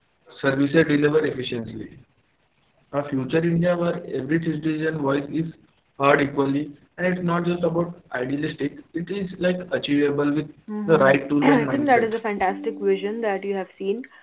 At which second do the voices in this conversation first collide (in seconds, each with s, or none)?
10.7 s